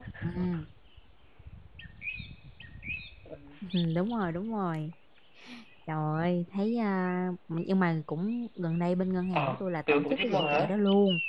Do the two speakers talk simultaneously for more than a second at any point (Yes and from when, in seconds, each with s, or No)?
Yes, from 9.3 s